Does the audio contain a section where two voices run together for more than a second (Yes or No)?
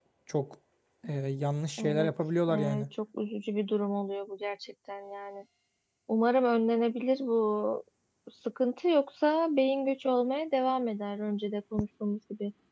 No